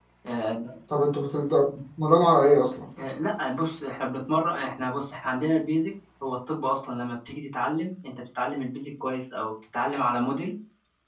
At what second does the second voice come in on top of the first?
none

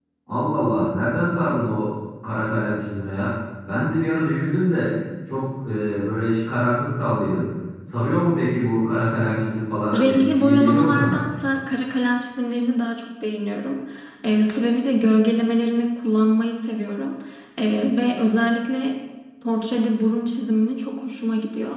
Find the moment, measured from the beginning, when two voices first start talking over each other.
10 s

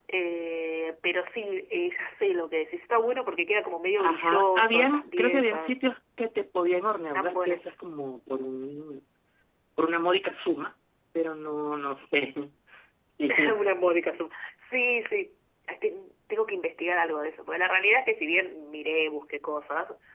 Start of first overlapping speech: 4 s

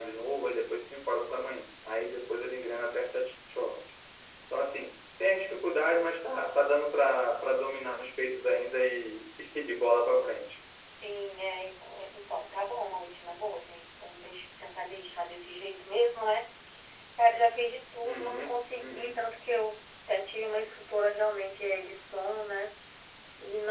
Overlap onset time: 18 s

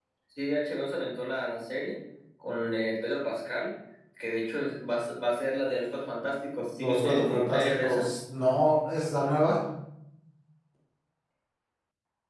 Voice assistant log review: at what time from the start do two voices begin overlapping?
7 s

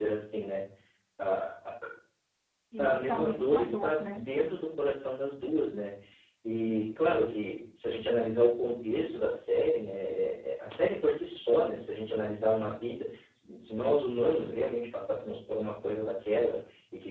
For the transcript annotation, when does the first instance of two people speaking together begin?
3 s

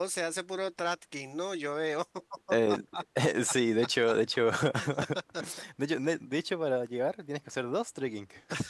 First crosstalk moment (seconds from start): none

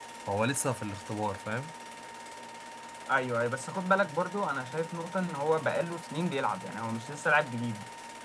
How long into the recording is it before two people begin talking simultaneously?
none

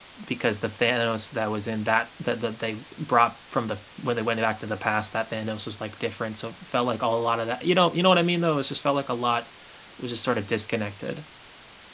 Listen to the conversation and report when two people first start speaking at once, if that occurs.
none

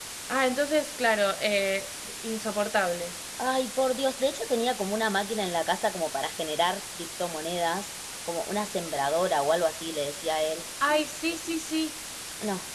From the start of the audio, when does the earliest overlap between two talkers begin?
none

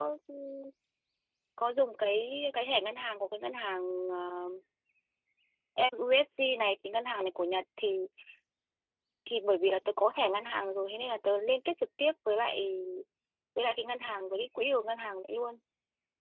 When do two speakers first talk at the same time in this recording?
none

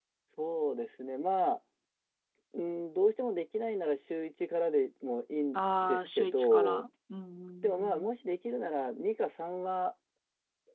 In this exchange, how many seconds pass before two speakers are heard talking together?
6 s

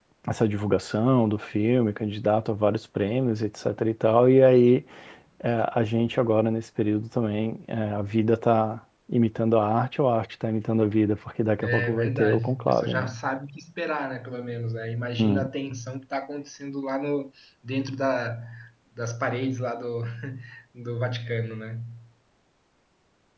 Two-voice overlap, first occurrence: 12 s

